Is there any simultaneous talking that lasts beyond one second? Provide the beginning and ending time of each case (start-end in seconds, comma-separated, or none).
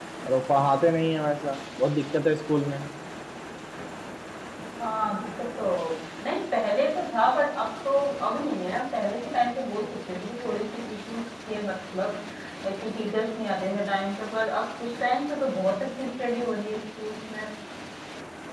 none